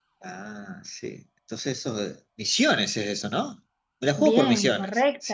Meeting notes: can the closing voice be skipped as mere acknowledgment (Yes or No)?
No